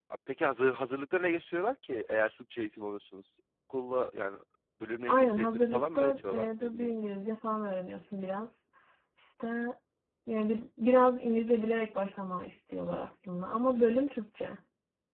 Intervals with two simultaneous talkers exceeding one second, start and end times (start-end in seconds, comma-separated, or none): 5.1-6.9